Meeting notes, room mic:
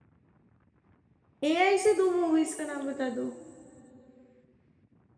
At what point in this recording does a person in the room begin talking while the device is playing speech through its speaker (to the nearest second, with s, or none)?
1 s